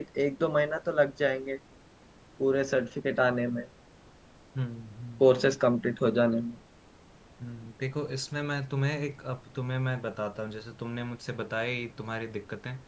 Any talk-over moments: No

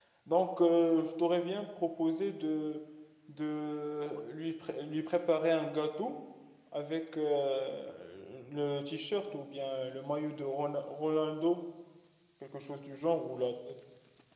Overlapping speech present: No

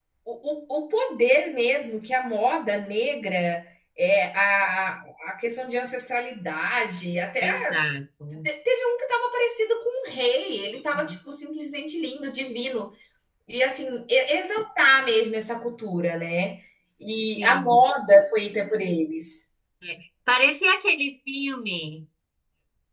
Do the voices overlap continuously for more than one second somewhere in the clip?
No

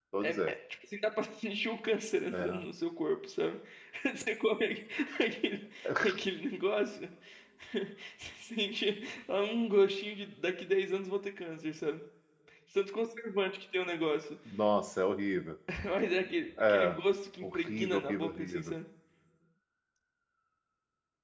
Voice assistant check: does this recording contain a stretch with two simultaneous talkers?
Yes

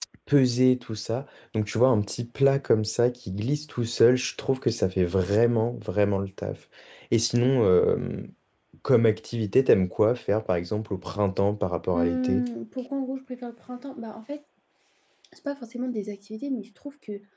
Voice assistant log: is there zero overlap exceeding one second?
Yes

